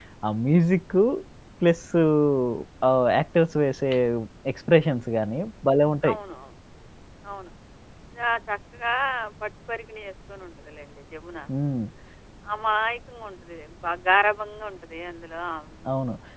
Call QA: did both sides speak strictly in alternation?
Yes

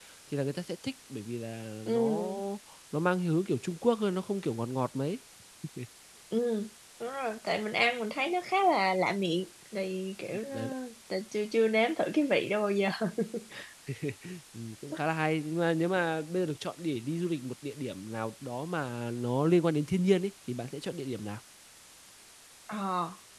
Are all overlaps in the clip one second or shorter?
Yes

